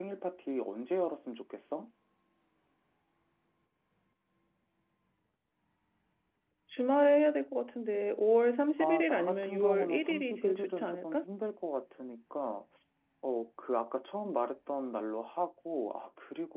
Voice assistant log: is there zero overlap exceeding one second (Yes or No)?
No